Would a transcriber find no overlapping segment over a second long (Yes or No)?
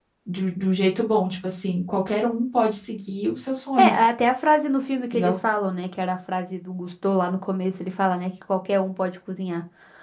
Yes